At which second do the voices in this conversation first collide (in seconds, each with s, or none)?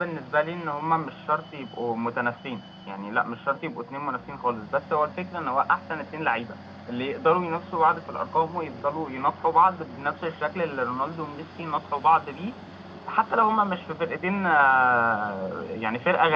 none